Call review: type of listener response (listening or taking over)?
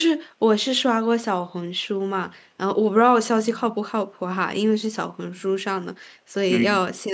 listening